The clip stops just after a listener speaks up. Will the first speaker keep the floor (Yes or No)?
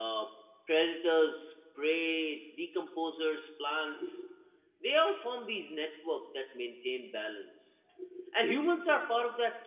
Yes